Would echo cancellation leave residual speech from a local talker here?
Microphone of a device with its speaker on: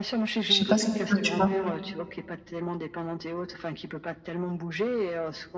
Yes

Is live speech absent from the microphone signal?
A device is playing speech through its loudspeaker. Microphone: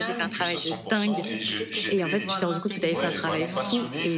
No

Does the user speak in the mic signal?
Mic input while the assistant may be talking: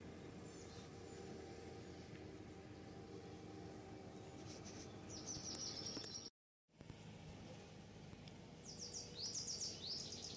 No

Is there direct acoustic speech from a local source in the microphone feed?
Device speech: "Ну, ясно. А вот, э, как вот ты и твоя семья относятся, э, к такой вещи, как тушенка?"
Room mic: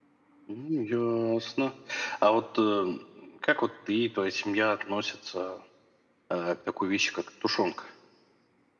No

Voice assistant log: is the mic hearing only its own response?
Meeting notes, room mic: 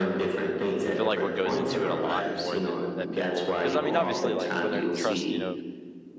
No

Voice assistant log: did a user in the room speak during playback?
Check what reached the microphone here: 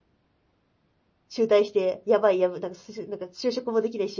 Yes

